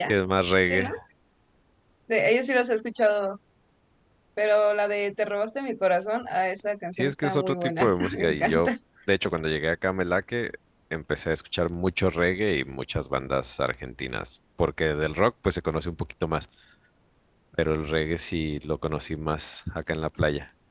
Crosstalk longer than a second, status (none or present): present